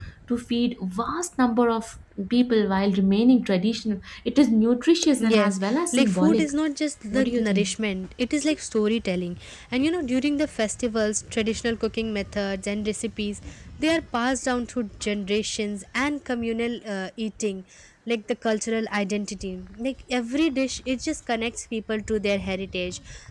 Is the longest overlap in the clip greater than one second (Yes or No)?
Yes